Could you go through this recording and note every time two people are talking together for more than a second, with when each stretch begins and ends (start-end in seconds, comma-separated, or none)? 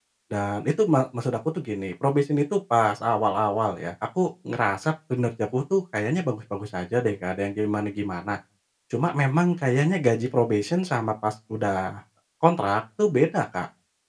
none